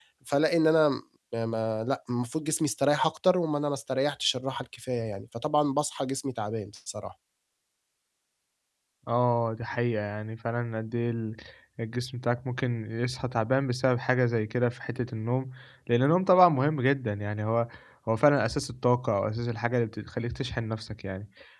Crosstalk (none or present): none